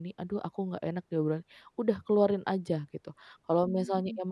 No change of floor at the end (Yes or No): Yes